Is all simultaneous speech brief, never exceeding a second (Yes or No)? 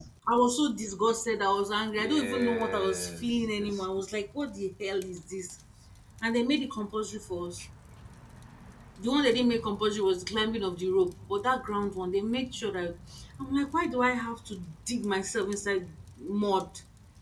No